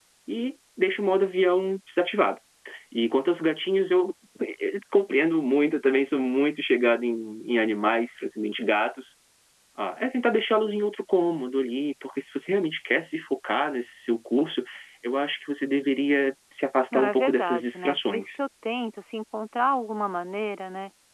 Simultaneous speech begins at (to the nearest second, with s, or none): 17 s